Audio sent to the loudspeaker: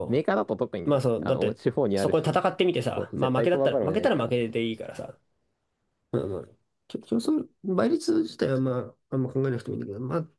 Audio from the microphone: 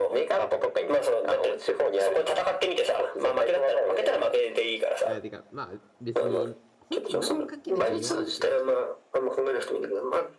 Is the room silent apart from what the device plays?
No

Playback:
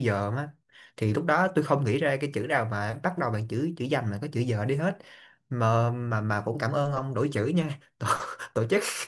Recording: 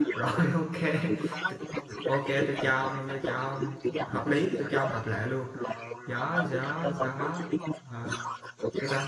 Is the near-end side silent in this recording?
No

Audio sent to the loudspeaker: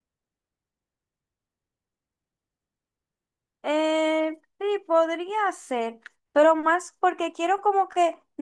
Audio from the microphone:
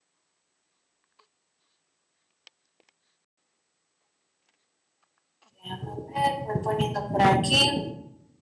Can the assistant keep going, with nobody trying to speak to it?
No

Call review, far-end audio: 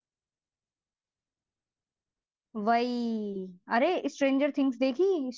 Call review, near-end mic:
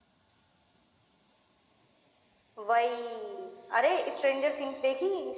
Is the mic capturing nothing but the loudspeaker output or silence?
Yes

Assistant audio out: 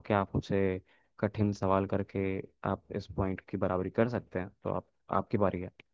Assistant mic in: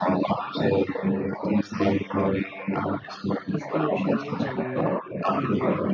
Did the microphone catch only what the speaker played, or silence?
No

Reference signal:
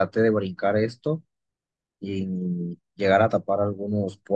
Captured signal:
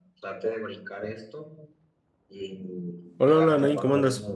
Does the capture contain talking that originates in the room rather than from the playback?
Yes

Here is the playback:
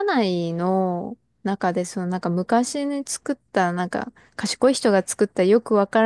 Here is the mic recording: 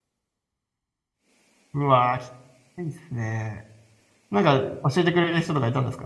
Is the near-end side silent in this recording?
No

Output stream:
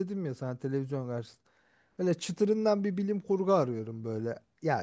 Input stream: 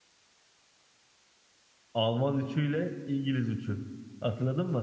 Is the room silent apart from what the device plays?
No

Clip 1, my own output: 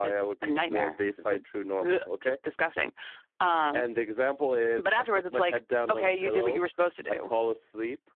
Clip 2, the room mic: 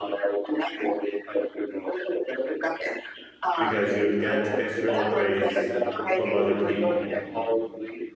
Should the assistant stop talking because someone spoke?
Yes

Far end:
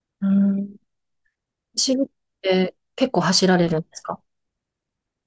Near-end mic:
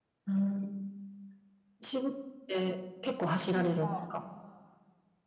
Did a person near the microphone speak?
Yes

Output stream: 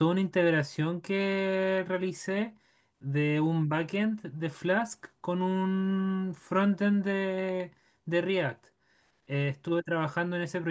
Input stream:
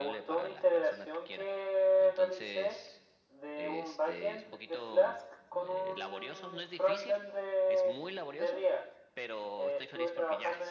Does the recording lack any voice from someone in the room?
No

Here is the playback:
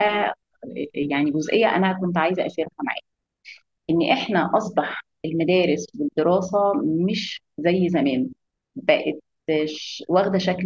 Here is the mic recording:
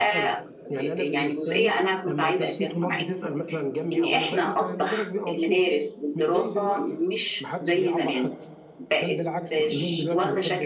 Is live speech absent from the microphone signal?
No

